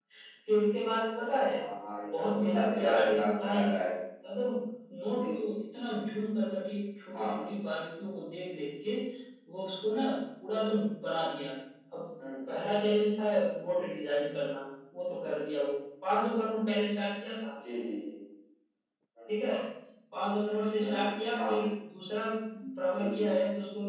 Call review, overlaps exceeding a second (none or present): present